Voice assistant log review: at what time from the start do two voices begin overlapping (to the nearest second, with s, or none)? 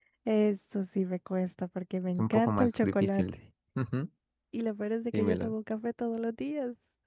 2 s